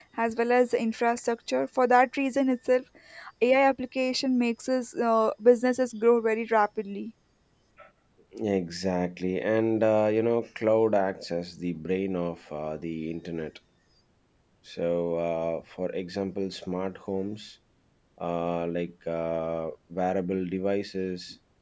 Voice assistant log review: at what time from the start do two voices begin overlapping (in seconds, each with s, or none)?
none